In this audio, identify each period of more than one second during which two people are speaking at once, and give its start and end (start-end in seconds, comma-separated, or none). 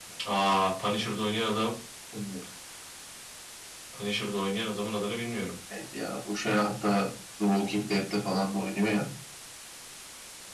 none